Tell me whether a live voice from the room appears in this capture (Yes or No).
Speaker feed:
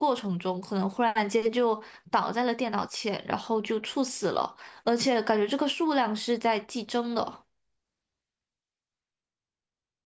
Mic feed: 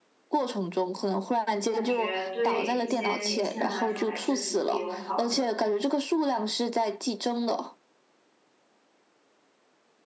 Yes